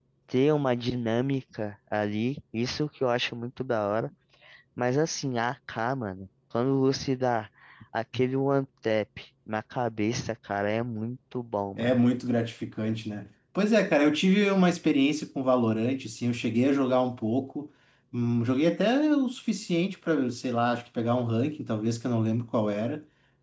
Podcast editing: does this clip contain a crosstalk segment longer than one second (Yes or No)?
No